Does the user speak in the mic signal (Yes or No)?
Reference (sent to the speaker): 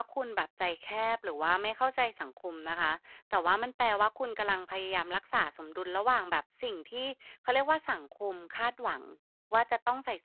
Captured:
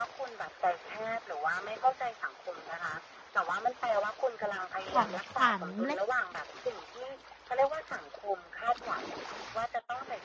Yes